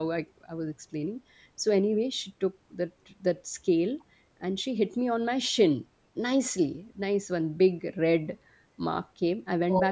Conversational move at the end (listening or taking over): listening